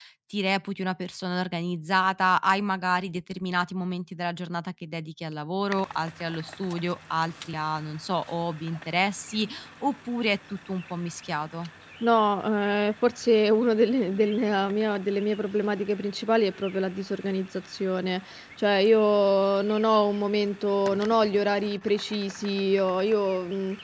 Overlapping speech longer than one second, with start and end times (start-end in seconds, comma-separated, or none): none